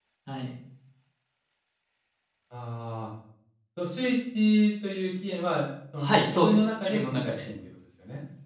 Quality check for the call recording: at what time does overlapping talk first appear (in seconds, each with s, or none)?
6.0 s